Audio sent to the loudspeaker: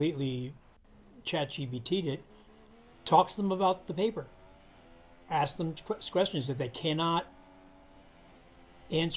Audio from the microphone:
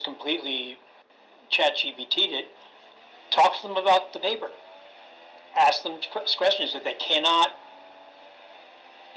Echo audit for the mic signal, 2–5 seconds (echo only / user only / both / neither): echo only